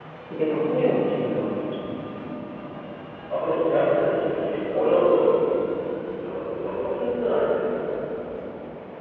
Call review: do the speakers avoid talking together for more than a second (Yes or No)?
Yes